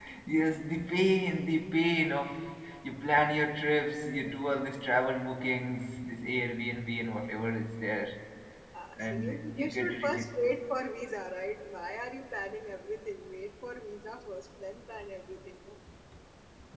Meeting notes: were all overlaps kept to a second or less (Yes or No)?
No